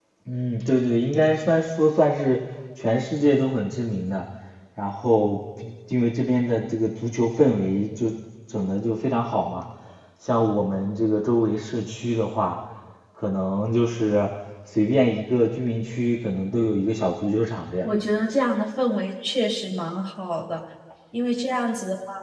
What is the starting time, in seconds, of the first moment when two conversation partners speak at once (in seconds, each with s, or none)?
none